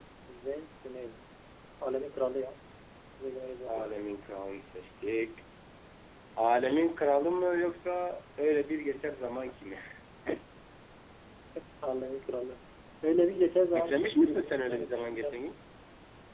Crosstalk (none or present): present